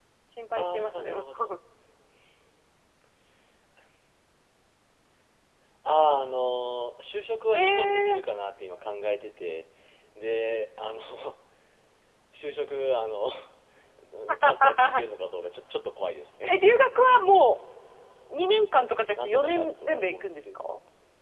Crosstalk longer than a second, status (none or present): present